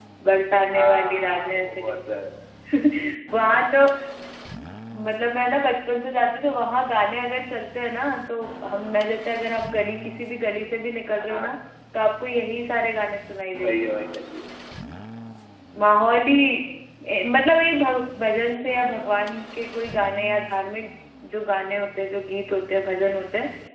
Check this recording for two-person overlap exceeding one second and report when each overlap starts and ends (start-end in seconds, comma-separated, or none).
0.7-2.0